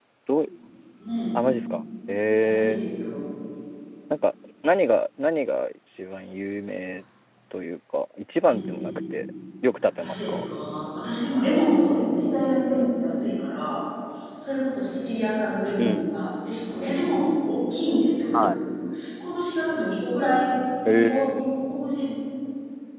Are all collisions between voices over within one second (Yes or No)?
Yes